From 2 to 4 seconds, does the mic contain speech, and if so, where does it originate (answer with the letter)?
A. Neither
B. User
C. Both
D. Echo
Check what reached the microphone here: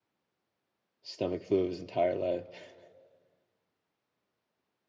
B